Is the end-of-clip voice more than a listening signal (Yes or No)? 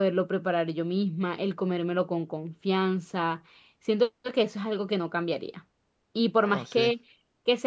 No